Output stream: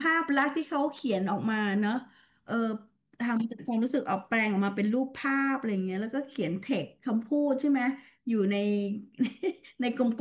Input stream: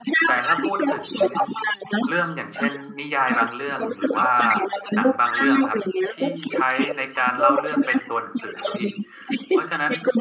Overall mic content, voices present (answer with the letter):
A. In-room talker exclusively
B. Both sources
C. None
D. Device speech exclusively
B